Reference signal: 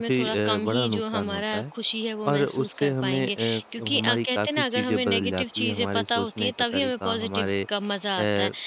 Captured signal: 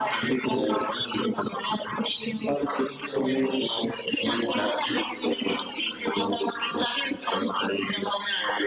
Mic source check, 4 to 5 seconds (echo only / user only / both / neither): echo only